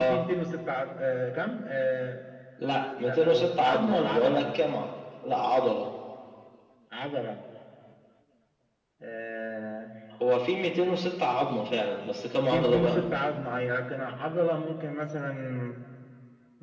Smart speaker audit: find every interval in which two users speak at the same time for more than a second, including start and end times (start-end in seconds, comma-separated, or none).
3.0-4.4